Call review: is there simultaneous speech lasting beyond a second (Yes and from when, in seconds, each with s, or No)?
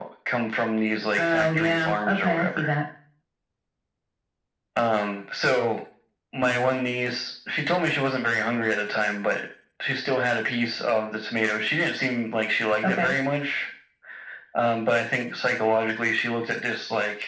Yes, from 1.2 s